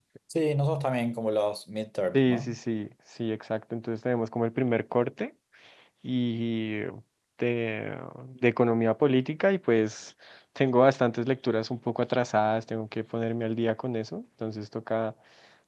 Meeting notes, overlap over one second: none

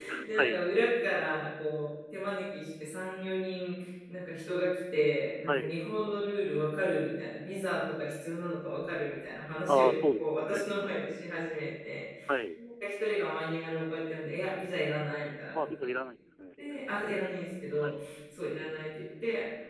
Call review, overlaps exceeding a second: present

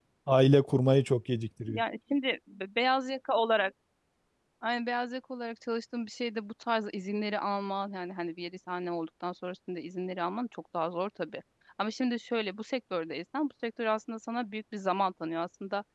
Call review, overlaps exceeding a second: none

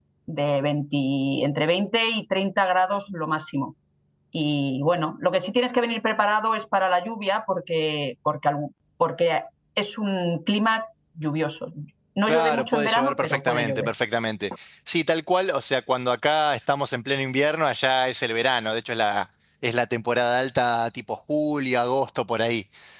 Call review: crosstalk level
present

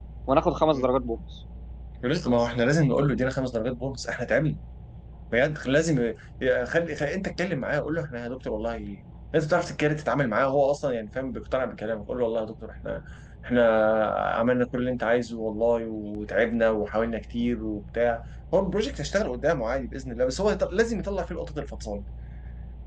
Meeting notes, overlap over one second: none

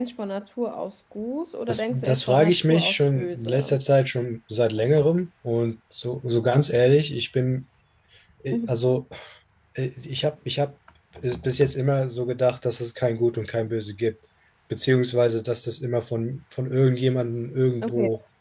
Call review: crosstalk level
present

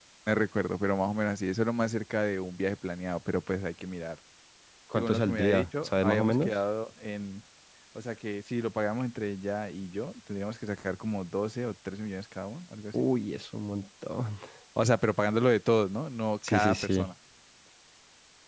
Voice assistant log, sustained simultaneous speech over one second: present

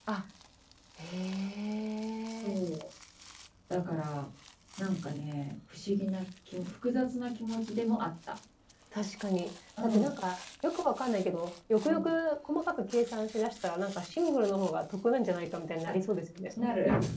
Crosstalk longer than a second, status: none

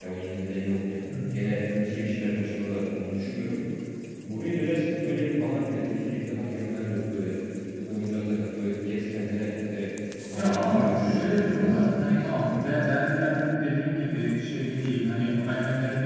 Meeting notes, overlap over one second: present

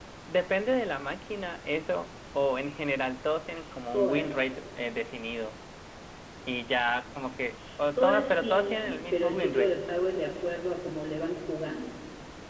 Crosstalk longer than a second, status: present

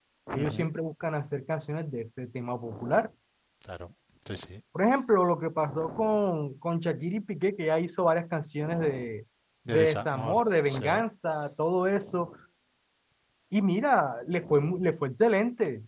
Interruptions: present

